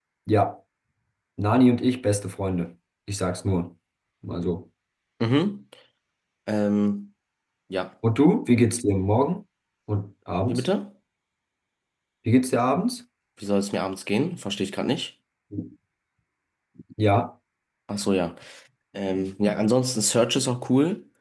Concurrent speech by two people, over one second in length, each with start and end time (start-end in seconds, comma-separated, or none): none